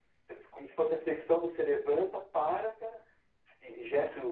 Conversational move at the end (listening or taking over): taking over